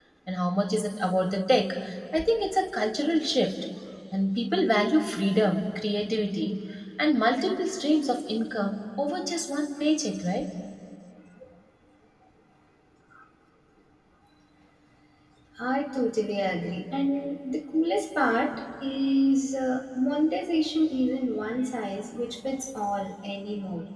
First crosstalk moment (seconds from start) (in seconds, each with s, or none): none